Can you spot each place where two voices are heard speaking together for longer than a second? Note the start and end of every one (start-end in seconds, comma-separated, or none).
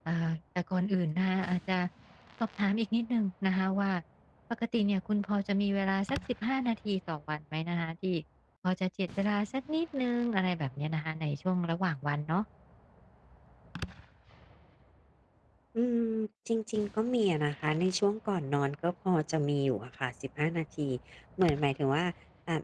none